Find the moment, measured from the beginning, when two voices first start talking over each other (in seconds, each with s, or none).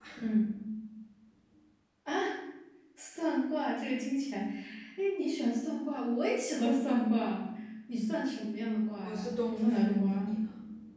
9.0 s